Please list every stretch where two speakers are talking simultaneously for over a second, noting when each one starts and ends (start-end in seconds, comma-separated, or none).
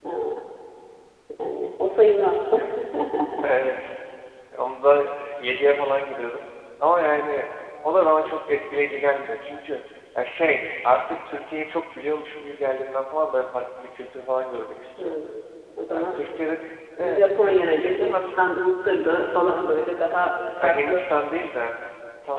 17.0-18.5